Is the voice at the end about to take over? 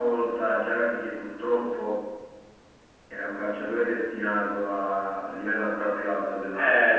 Yes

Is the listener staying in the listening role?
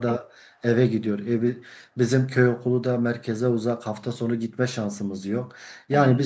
Yes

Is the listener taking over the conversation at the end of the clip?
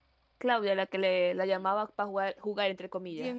Yes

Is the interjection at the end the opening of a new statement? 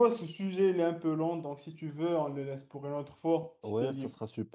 Yes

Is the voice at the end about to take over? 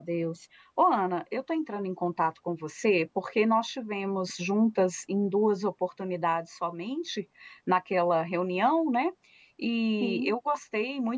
No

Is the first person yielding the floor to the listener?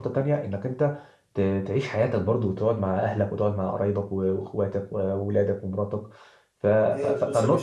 Yes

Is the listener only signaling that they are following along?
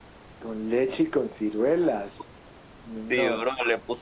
No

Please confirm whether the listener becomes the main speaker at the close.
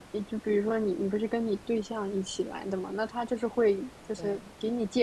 No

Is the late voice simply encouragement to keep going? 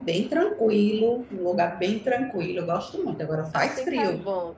No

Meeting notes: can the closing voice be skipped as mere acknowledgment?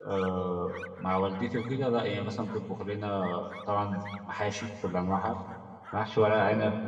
Yes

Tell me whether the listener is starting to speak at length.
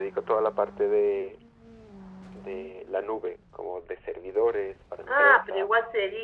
Yes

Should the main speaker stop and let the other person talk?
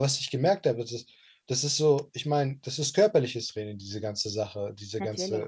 No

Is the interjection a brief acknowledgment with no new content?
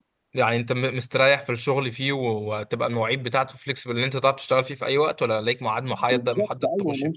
No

